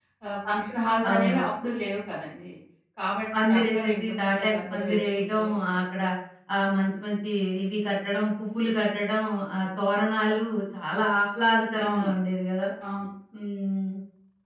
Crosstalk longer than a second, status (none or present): present